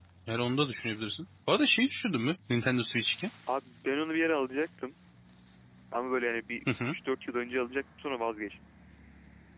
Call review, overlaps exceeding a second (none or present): none